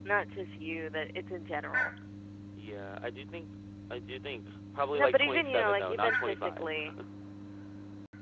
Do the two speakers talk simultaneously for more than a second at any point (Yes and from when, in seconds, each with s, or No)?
Yes, from 4.9 s